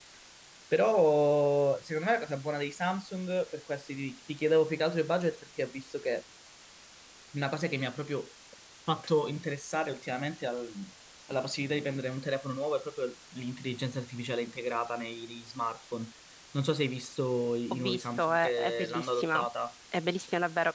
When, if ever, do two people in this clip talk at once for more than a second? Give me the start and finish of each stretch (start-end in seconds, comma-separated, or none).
17.7-19.4